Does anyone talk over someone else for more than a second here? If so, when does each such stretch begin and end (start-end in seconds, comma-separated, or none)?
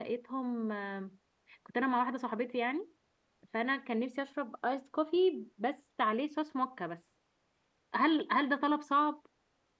none